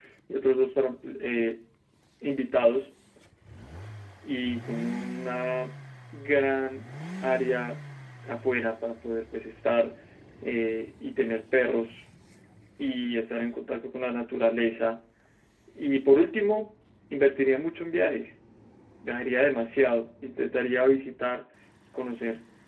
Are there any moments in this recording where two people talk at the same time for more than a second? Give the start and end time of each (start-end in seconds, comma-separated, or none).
none